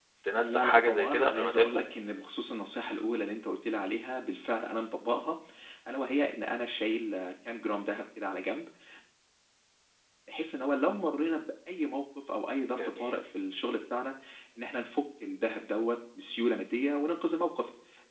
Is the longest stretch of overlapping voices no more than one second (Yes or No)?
No